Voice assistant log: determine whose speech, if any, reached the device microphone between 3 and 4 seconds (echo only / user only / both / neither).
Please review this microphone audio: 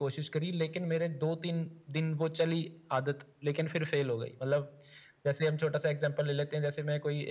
echo only